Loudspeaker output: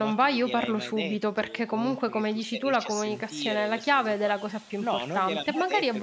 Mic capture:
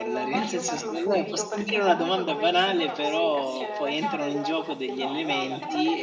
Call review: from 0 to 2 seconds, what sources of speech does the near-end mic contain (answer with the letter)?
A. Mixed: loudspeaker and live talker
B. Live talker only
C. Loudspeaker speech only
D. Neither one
A